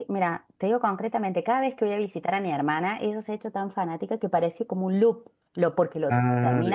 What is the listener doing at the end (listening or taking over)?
listening